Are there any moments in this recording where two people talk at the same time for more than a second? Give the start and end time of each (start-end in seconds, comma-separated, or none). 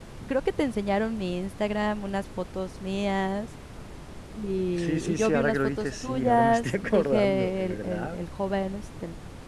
4.8-8.2